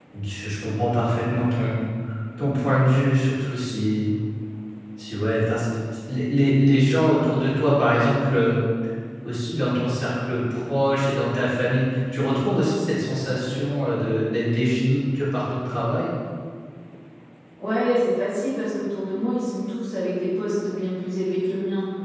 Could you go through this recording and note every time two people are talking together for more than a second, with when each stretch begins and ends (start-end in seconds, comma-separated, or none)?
none